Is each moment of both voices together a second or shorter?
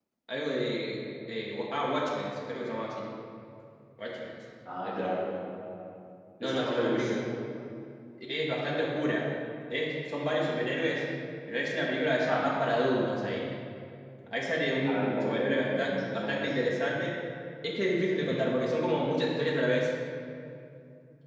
No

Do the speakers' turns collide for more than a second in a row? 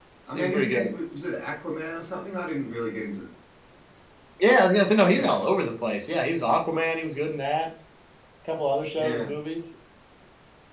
No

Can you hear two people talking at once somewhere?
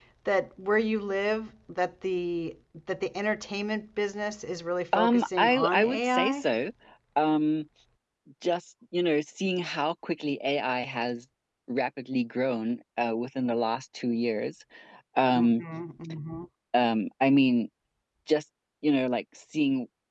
Yes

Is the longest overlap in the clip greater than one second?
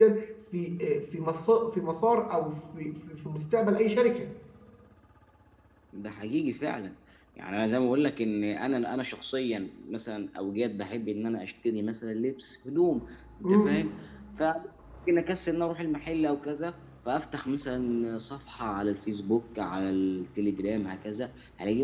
No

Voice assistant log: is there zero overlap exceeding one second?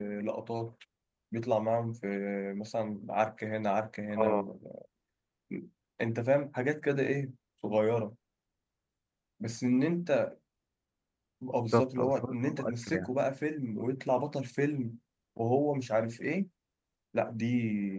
No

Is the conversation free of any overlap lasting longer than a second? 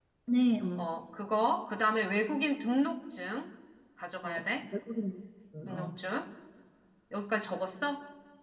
Yes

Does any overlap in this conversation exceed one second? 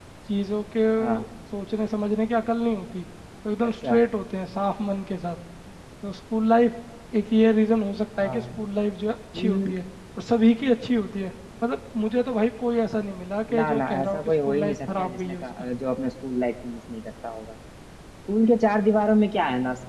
Yes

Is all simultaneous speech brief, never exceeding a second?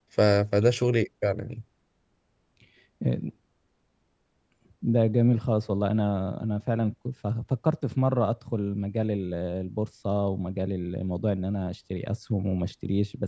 Yes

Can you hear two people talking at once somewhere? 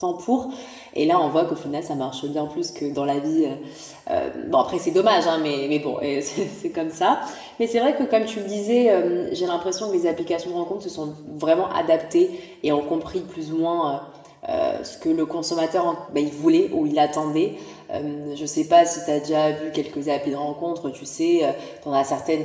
No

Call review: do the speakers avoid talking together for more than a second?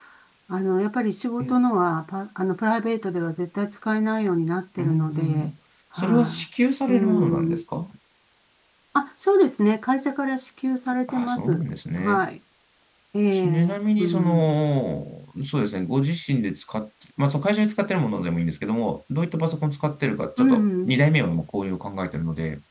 No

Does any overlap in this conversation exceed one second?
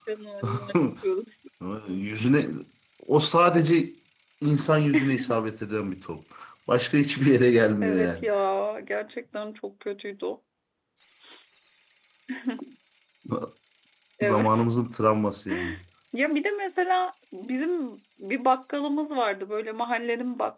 No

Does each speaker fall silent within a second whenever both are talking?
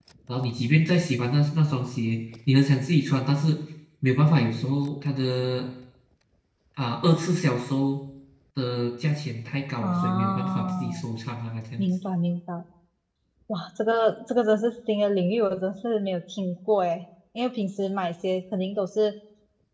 No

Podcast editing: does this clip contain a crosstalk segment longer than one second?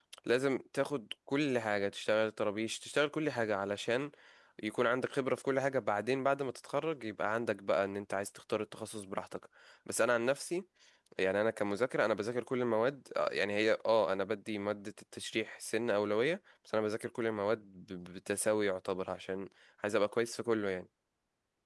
No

